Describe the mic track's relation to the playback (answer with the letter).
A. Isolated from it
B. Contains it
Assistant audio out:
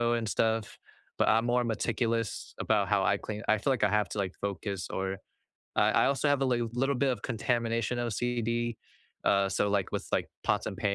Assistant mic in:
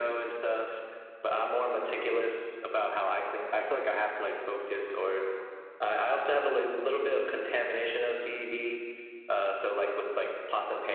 B